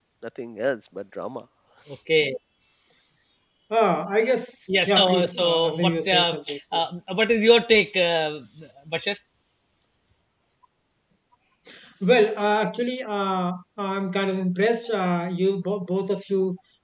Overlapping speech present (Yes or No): Yes